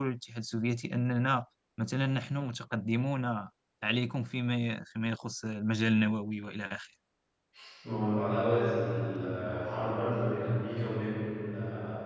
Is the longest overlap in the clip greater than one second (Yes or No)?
No